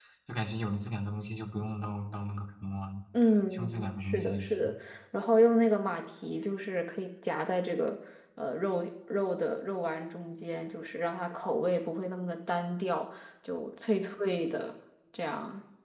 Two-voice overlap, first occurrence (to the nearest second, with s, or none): 4 s